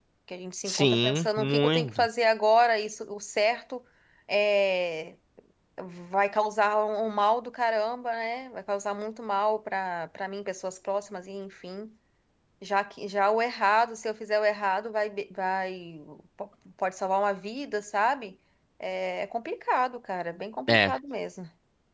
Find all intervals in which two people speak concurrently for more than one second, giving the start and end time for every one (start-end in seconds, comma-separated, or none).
0.6-2.1